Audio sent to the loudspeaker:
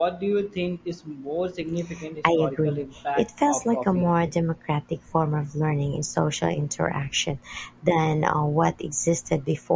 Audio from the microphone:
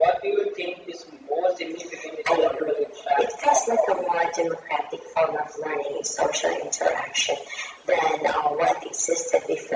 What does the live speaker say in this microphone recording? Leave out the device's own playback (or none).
none